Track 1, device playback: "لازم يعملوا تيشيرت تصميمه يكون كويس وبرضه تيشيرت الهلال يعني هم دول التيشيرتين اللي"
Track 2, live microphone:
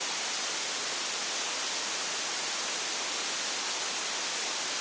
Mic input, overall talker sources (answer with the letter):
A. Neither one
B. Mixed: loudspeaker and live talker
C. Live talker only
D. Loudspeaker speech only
A